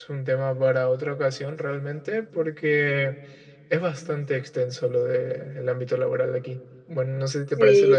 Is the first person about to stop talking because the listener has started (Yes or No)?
Yes